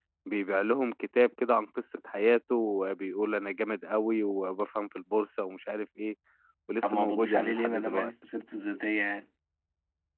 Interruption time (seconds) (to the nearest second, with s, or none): 7 s